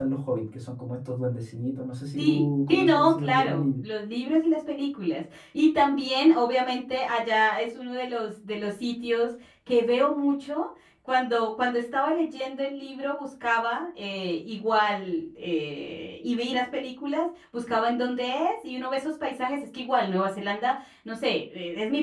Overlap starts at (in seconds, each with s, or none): 2.2 s